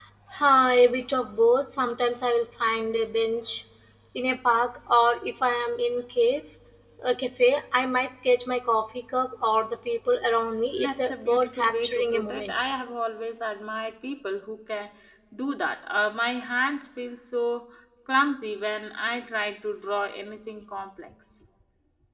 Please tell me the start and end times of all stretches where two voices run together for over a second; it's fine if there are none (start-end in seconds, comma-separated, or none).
10.8-12.7